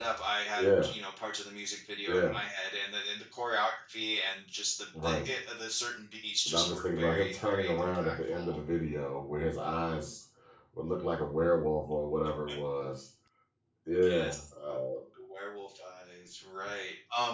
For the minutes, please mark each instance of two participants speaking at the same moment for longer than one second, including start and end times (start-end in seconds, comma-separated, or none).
6.5-8.6